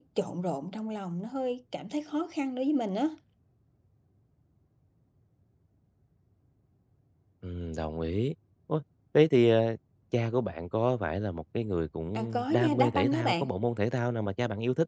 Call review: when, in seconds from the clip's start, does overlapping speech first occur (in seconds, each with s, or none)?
12.2 s